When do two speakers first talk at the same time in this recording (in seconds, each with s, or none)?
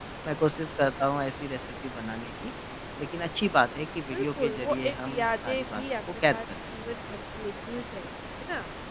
4.1 s